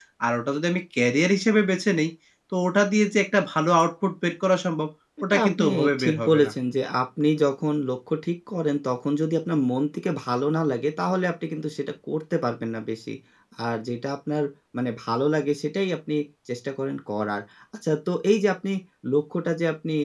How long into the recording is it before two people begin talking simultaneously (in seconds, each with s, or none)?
5.3 s